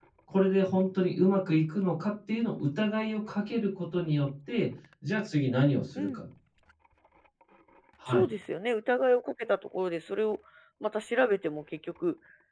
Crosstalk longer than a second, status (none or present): none